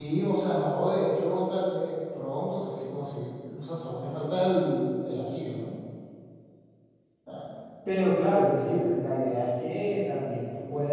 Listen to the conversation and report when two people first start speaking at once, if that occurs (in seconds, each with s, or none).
none